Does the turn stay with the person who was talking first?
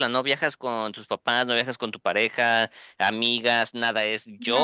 No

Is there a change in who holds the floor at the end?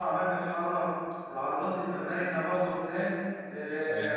No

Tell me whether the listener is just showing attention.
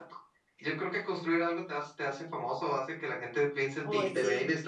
Yes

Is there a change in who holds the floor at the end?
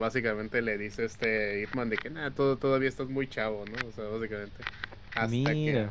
No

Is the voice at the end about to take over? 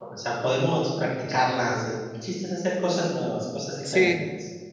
Yes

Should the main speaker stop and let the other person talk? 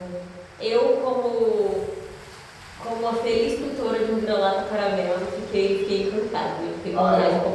Yes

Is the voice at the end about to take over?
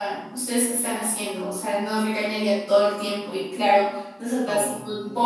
No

